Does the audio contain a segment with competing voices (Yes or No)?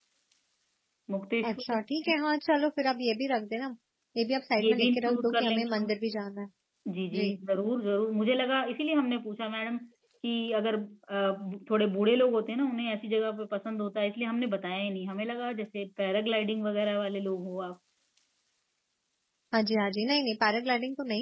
Yes